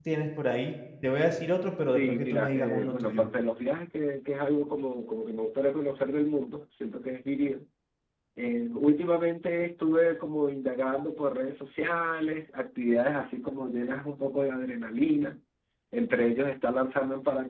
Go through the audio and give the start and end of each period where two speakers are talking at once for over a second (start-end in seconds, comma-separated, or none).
1.9-3.3